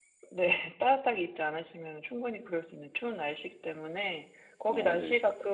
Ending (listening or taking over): listening